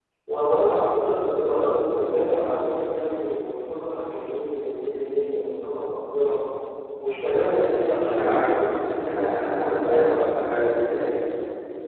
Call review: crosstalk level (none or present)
present